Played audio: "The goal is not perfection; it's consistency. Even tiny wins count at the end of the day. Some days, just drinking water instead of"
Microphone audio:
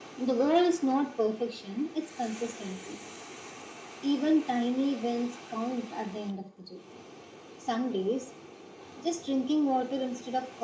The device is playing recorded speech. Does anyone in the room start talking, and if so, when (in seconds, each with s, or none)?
none